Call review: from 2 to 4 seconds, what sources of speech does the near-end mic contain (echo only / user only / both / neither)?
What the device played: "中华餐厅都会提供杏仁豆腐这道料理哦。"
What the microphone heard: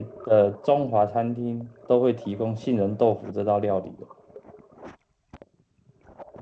echo only